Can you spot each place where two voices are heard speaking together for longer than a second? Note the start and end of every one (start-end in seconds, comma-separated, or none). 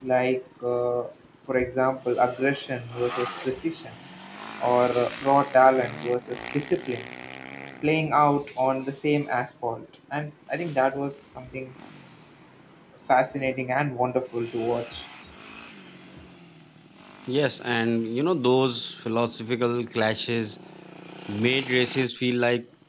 none